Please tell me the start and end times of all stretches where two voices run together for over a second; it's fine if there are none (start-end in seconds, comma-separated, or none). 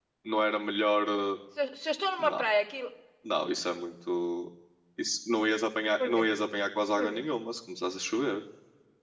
none